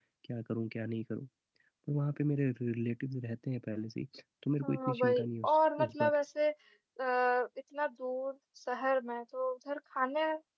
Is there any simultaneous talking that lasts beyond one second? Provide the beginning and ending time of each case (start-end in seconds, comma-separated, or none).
4.6-6.2